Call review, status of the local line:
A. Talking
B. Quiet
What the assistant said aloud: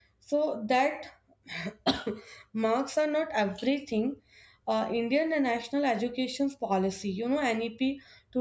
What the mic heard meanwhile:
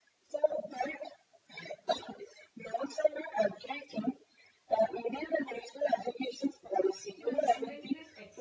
A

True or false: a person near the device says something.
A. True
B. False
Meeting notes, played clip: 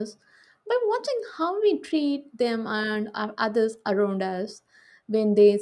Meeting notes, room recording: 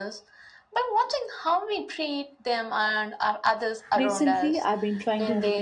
A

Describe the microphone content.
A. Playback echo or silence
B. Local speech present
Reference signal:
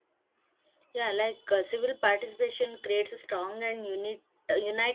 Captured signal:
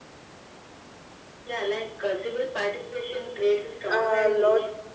B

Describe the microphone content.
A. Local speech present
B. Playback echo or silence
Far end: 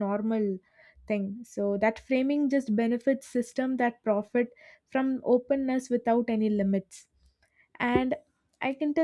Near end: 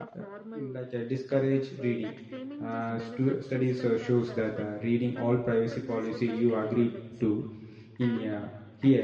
A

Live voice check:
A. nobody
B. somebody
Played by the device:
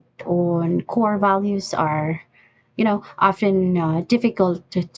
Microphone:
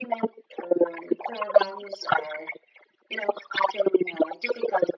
A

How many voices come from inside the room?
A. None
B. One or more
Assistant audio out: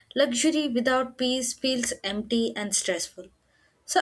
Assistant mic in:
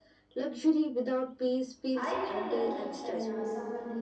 B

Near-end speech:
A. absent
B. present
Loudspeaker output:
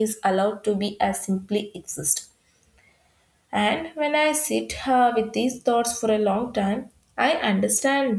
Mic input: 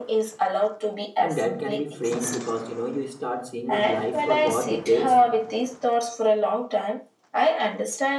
B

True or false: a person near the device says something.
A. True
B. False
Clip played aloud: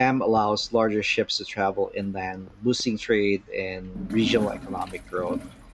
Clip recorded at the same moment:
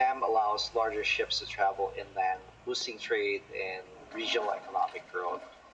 B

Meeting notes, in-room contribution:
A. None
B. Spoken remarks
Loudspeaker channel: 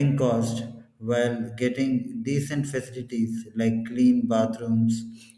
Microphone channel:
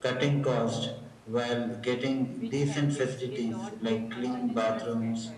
B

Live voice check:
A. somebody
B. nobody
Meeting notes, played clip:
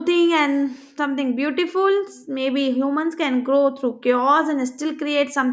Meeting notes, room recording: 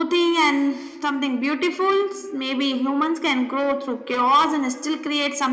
B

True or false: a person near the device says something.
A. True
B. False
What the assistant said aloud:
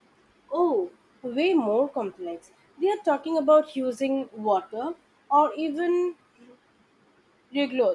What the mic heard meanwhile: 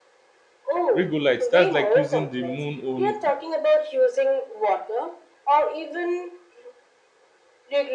A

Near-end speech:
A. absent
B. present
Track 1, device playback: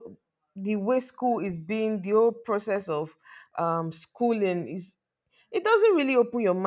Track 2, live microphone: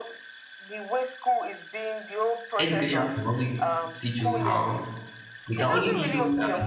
B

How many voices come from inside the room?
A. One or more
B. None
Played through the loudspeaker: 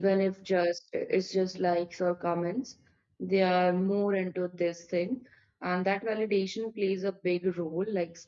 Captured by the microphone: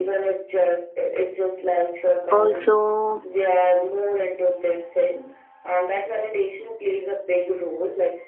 A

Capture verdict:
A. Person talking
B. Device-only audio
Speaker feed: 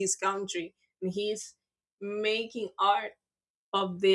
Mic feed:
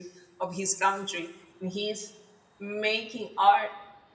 B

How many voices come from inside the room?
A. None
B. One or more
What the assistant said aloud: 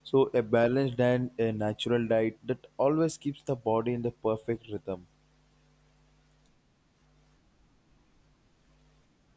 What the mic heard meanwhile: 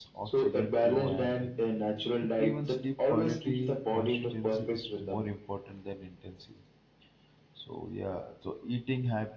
B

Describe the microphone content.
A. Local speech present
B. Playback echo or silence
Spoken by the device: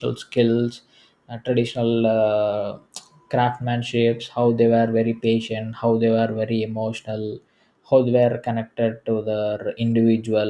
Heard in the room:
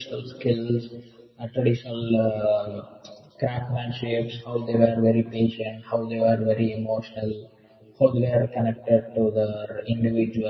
B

